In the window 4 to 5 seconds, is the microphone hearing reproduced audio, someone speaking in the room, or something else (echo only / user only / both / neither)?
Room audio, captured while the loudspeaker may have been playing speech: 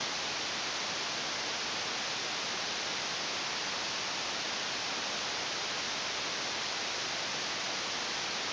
neither